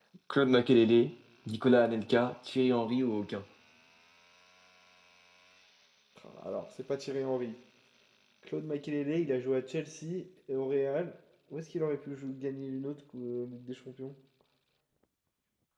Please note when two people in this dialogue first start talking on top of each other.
none

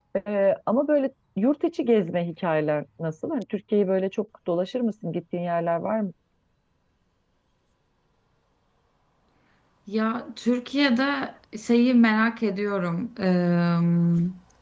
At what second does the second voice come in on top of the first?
none

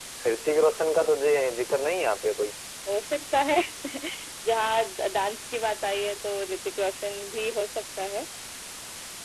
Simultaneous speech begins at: none

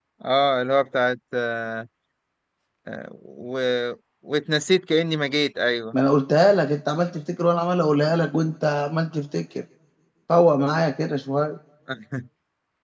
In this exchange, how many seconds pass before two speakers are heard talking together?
none

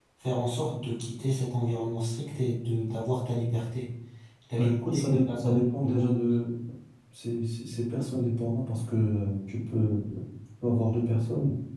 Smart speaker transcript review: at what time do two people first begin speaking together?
4.6 s

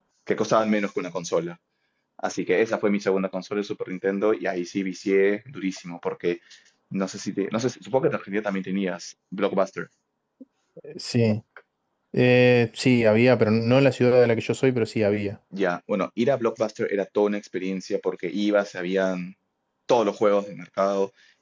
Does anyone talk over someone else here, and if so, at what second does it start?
none

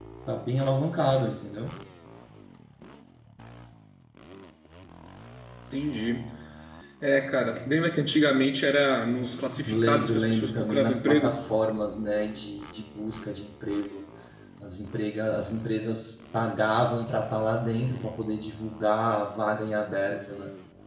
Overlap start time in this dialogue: 9.6 s

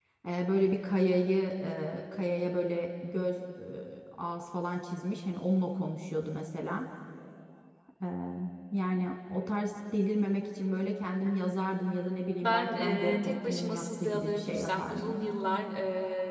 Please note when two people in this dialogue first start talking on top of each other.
12.4 s

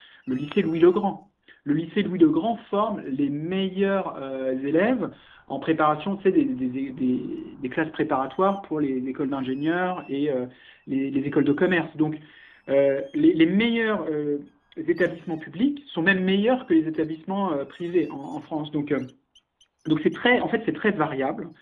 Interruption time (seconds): none

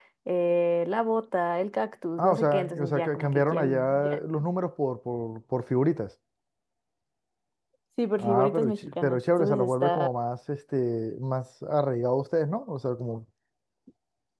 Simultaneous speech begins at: 2.2 s

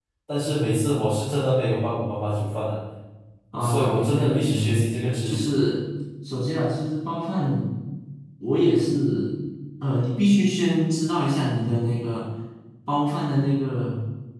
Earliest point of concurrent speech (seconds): 3.6 s

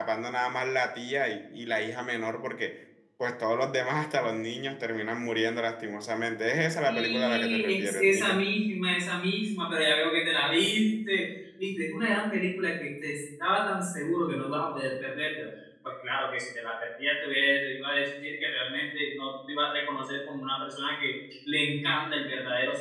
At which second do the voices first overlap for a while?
6.9 s

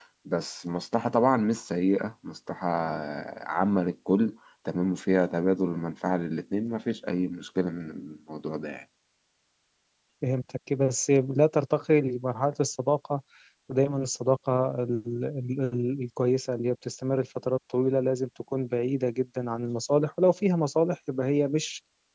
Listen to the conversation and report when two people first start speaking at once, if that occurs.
none

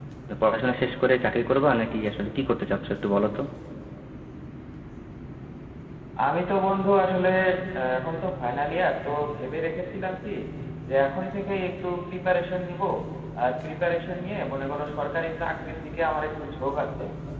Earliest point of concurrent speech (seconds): none

